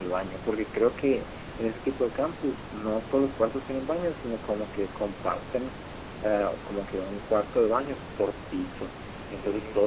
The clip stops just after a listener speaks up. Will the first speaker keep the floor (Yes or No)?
Yes